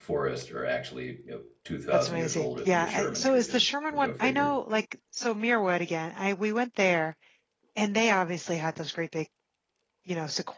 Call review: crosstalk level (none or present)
present